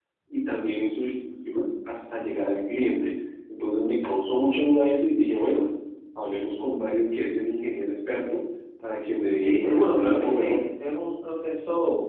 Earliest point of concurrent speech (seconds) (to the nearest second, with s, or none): 9 s